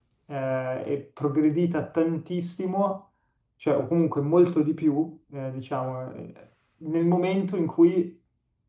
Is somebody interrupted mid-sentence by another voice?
No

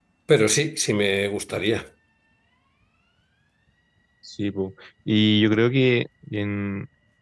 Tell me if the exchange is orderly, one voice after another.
Yes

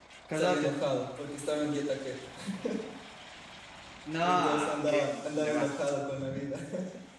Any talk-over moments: Yes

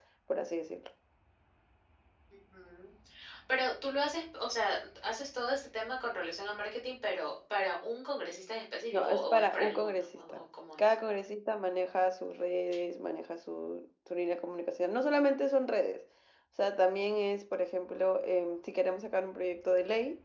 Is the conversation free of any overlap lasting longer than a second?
No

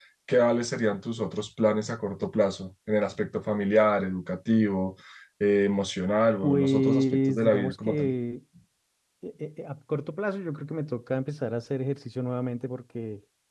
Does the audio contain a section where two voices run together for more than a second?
Yes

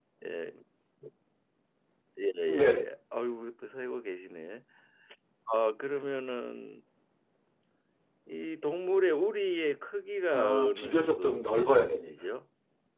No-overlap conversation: No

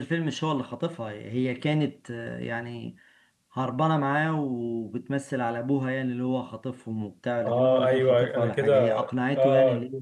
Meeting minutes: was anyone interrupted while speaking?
Yes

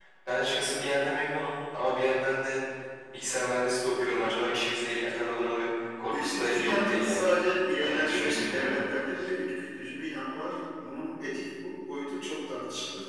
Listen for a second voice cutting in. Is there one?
Yes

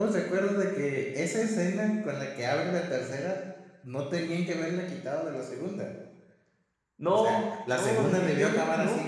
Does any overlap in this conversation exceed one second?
Yes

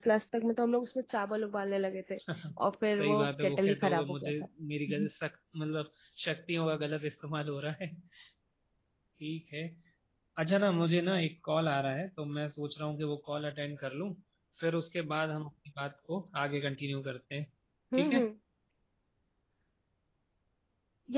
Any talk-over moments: Yes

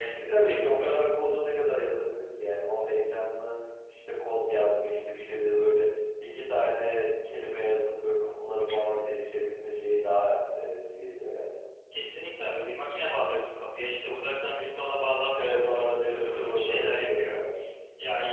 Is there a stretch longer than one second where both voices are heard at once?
Yes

